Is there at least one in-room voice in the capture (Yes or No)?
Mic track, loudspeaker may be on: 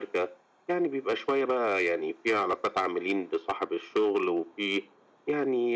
No